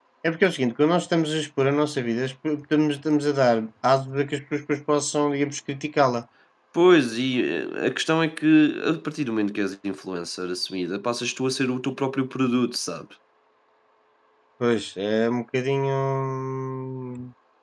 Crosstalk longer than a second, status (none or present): none